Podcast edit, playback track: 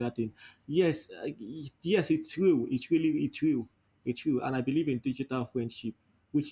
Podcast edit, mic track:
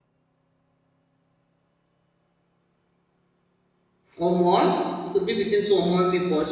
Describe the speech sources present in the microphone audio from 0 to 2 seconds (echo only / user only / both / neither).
neither